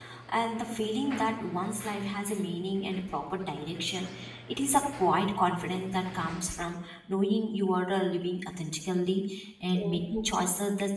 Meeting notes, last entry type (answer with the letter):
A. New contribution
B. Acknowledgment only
B